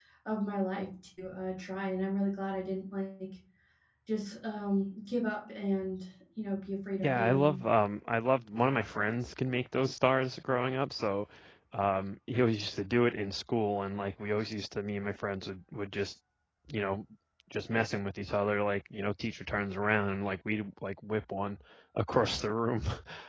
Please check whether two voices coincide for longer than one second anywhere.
No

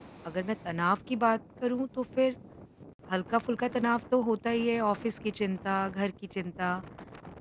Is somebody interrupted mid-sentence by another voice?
No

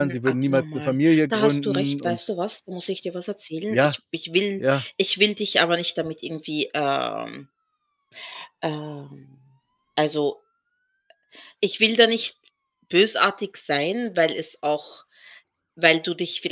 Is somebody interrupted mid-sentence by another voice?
Yes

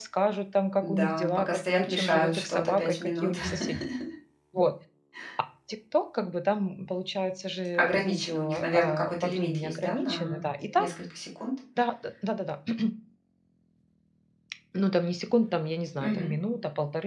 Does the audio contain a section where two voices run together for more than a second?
Yes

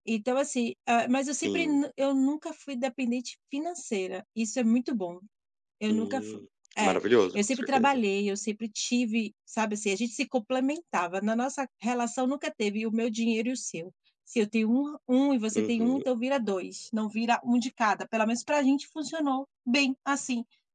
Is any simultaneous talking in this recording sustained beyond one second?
Yes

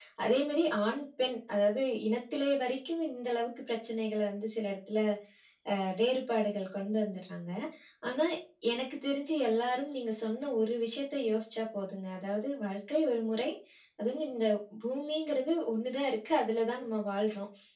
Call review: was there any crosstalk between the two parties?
No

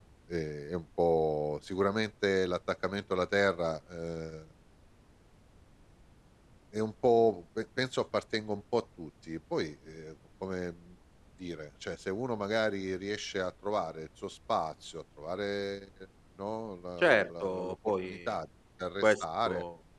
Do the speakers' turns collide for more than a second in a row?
Yes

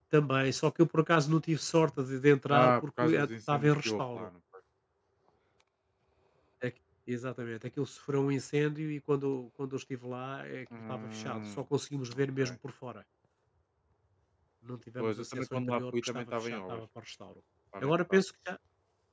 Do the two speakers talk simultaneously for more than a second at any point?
Yes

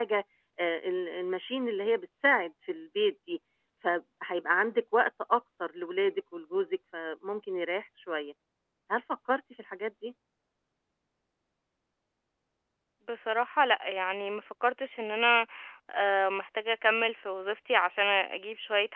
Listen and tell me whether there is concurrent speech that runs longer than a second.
No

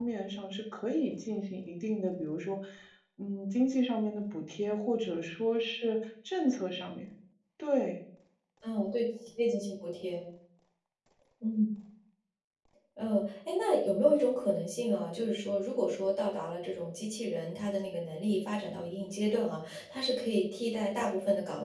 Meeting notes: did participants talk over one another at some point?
No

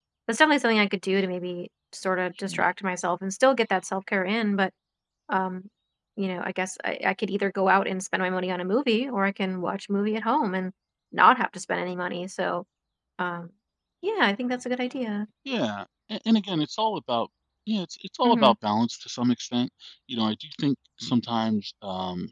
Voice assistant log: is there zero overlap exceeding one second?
Yes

